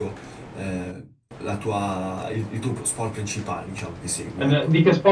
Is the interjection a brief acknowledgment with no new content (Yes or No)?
No